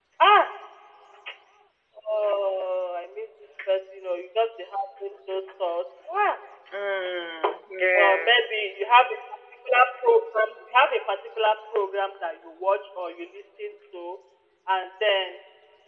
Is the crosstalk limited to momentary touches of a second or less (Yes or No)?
Yes